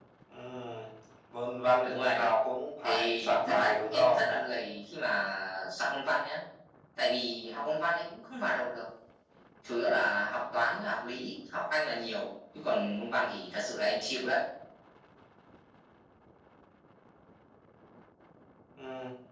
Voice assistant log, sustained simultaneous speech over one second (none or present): present